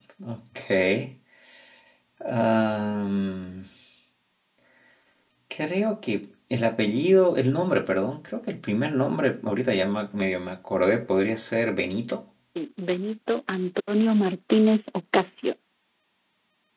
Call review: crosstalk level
none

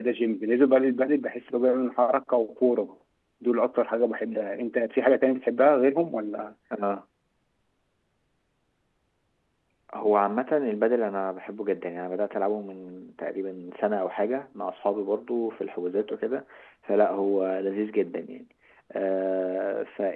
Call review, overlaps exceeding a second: none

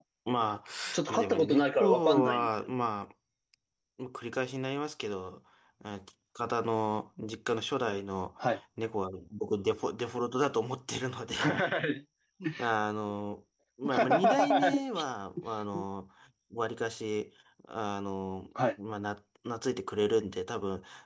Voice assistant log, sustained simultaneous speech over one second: present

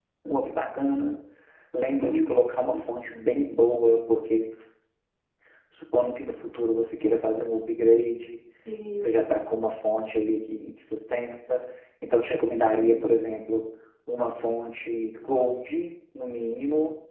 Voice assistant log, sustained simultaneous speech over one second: none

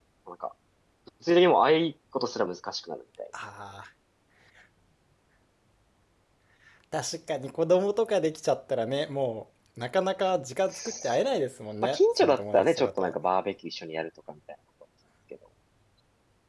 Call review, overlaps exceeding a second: present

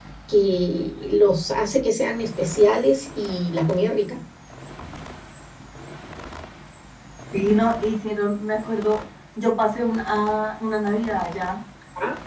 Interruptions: none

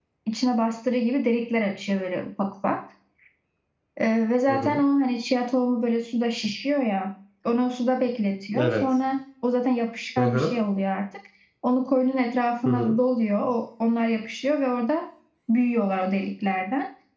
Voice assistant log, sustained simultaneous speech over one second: none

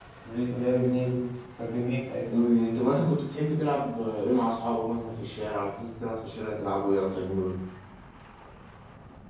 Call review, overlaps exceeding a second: none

